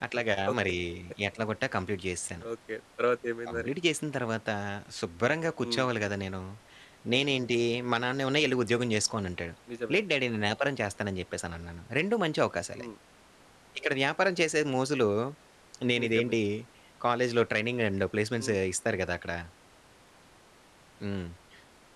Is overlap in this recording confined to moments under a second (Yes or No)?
Yes